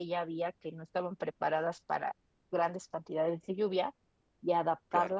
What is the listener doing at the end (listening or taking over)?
listening